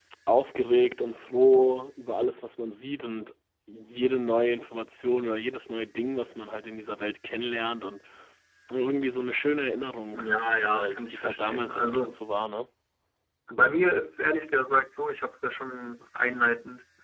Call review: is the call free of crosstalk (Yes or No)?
No